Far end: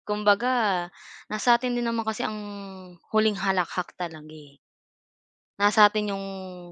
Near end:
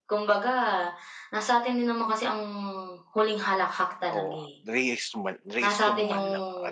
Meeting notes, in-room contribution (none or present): present